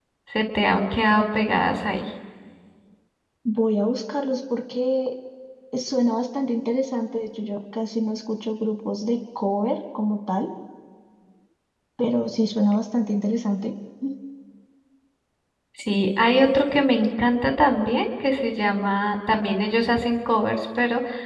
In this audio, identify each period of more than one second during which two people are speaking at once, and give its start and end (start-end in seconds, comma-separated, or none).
none